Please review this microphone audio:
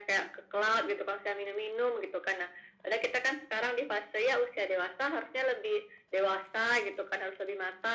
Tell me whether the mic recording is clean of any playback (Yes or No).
No